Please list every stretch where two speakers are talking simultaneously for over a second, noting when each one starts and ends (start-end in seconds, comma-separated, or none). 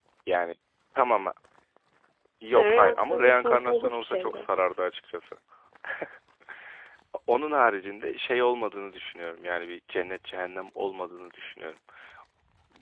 2.5-4.5